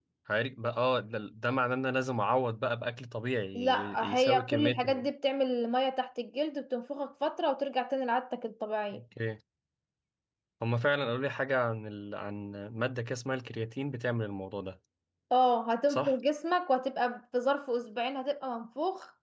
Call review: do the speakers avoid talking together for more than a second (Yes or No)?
No